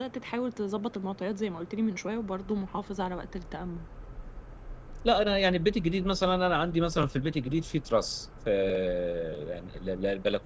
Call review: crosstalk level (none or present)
none